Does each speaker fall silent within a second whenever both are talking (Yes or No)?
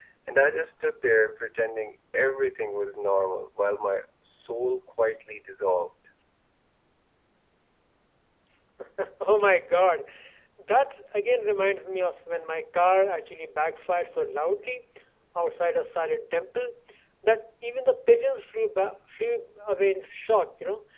Yes